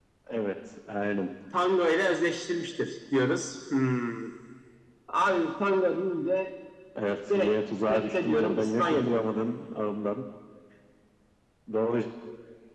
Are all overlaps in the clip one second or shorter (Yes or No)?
No